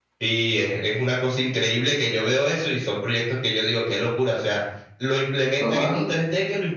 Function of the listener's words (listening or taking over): listening